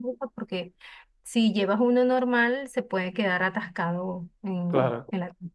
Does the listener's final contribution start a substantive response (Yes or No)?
No